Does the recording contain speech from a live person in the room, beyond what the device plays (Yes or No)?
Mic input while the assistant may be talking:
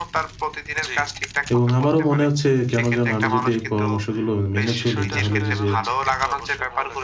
Yes